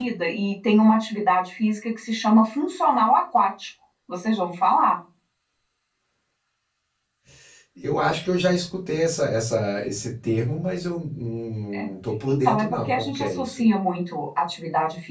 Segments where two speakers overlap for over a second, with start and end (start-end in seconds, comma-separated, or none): 12.3-13.7